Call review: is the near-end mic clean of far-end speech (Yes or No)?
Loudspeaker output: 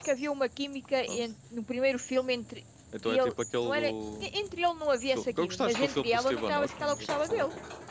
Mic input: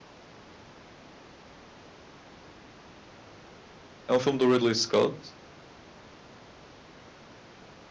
Yes